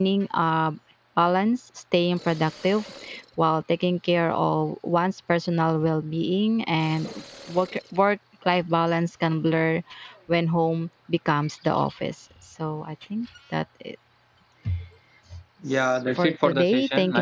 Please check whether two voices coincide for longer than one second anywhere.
Yes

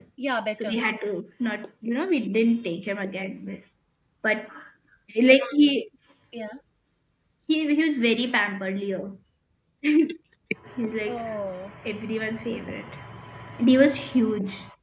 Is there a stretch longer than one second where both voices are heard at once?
No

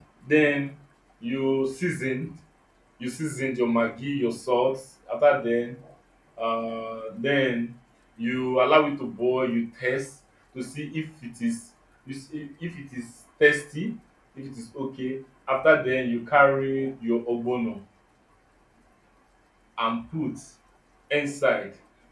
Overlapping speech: No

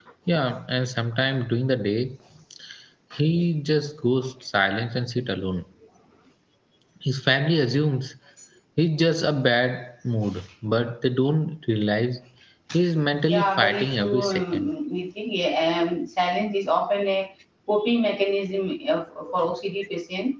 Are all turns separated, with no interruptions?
No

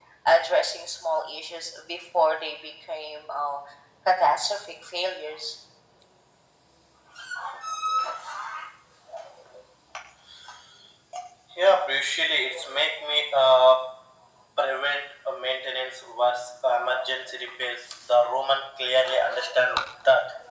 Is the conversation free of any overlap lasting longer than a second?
Yes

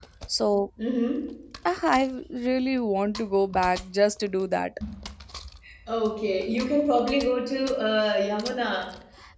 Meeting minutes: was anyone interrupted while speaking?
No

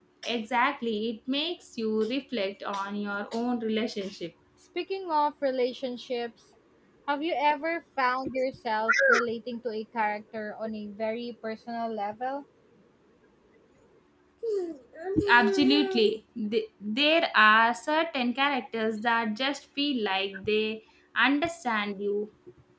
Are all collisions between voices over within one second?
Yes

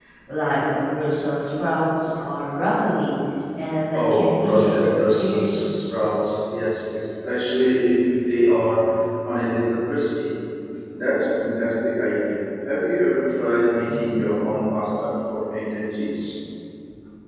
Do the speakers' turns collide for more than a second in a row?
Yes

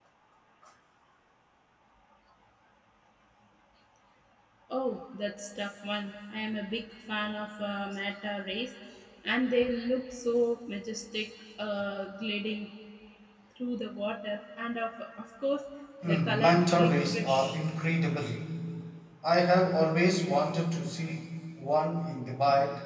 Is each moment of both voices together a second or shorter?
No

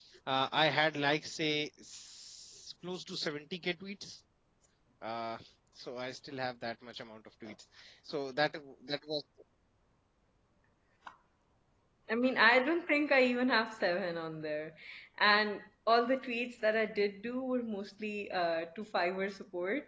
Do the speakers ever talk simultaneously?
No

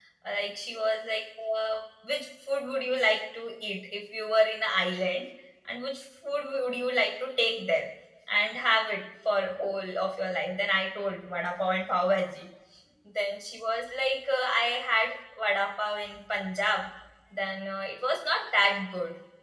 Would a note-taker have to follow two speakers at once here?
No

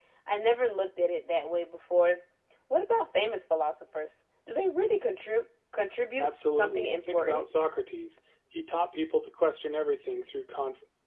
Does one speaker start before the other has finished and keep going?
Yes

